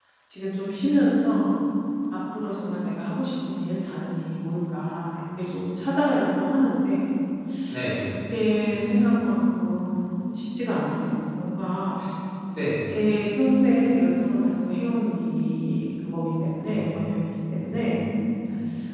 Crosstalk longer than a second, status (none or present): none